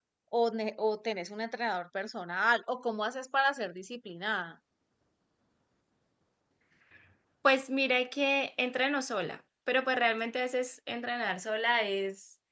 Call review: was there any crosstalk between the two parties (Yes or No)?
No